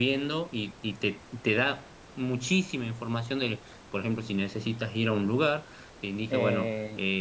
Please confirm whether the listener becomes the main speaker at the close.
No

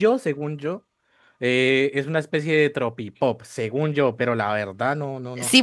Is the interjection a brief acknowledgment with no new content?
No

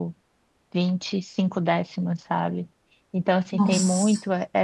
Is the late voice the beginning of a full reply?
No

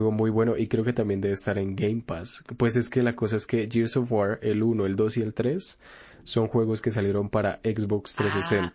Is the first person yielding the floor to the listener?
Yes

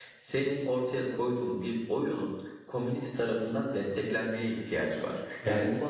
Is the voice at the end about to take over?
No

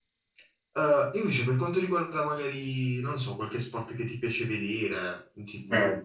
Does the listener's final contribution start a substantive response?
Yes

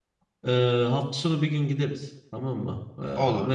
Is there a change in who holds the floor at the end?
No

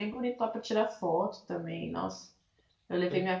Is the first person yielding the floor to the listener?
No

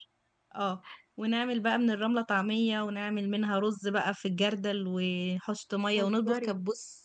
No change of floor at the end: Yes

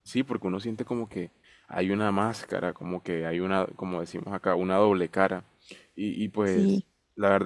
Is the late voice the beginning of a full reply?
No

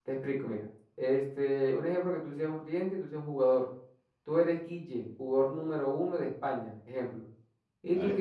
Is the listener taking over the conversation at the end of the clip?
No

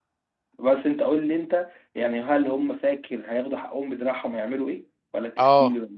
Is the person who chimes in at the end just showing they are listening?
No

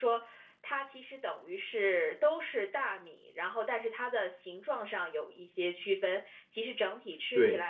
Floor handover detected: No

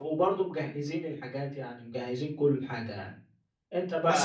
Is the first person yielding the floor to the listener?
Yes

